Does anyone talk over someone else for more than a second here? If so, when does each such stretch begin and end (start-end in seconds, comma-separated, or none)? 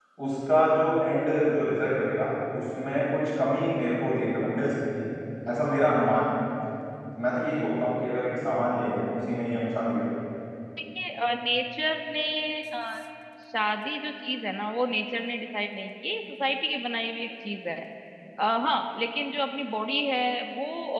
none